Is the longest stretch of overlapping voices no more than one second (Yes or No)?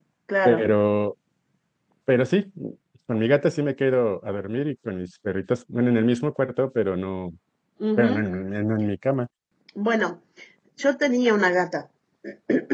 Yes